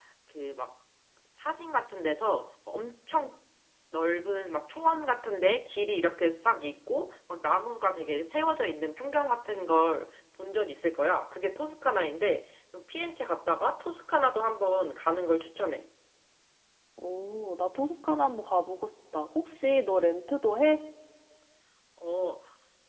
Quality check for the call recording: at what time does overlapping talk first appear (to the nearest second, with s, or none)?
none